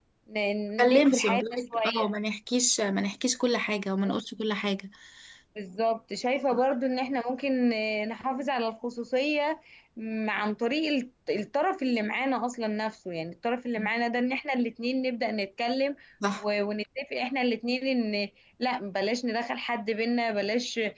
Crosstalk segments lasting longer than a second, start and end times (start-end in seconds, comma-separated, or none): 0.8-2.1